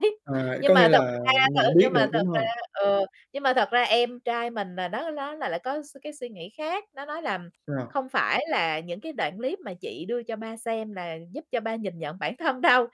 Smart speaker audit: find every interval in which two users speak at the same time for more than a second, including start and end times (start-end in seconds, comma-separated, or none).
0.6-2.5